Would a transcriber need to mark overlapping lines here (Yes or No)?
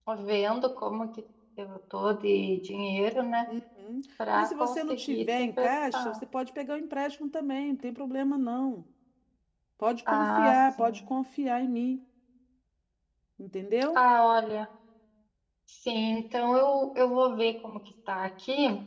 Yes